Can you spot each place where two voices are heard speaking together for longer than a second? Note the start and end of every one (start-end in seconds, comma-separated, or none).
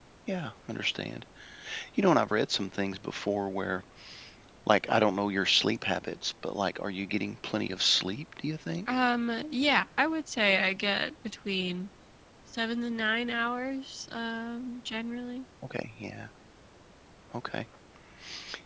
none